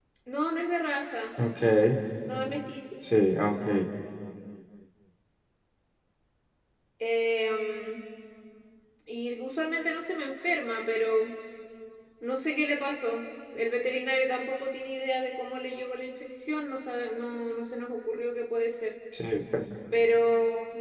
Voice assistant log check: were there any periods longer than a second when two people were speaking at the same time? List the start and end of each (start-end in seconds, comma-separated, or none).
none